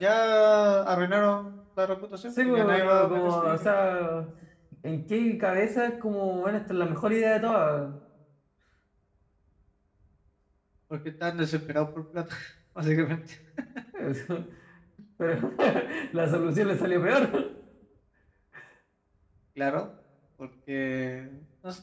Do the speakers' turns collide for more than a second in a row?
Yes, from 2.4 s

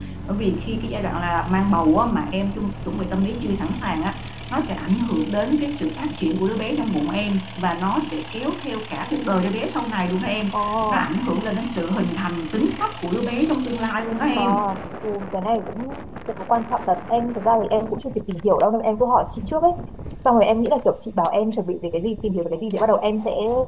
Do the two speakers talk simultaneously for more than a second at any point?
No

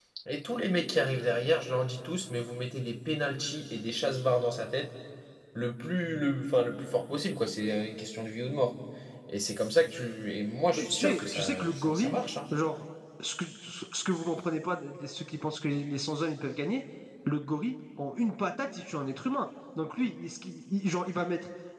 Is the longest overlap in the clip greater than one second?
Yes, from 10.8 s

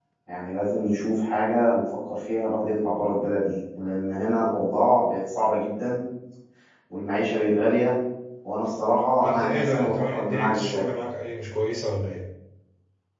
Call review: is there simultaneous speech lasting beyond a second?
Yes, from 9.2 s

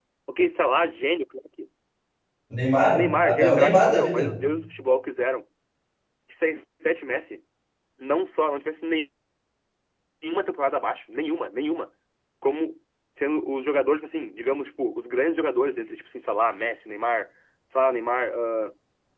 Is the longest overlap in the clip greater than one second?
Yes, from 2.9 s

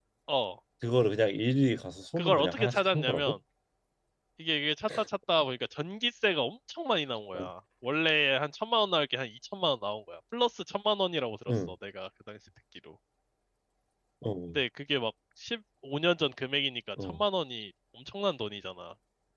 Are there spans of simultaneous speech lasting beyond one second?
Yes, from 2.2 s

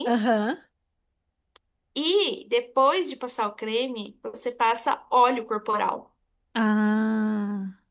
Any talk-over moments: No

